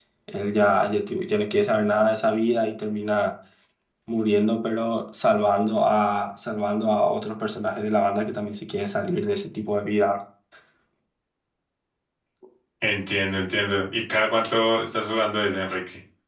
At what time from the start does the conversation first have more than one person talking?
none

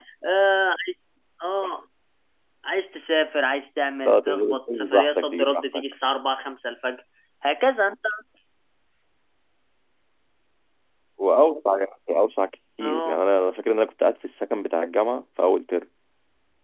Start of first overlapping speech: 4.1 s

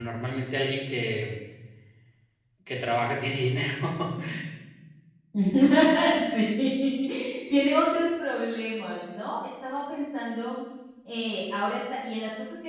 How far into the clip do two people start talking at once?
none

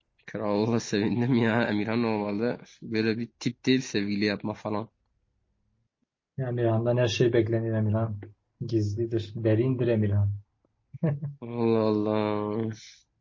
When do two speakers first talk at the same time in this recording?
none

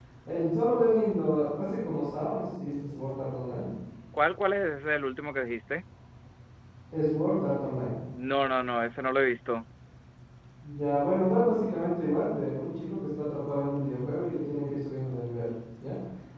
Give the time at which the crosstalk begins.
none

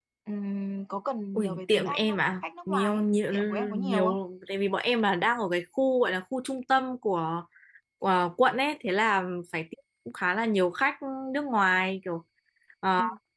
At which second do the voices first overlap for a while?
1.4 s

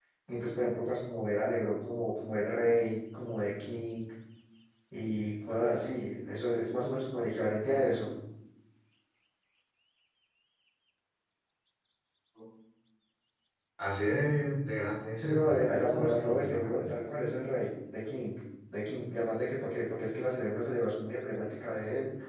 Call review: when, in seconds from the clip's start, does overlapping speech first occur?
15.2 s

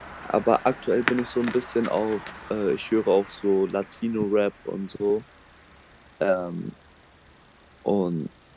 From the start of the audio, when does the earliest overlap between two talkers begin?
none

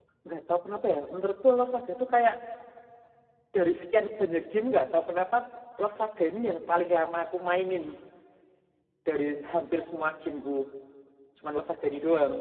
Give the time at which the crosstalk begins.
none

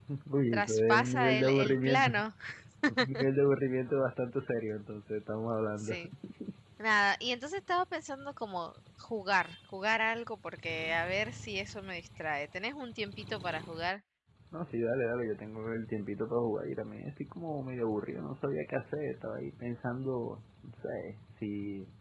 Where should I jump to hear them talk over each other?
0.5 s

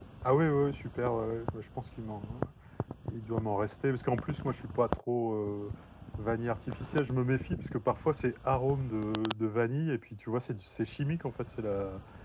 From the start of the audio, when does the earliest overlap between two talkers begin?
none

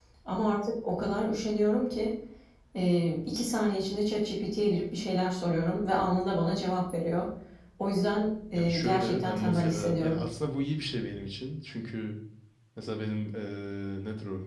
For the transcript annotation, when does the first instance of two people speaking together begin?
8.5 s

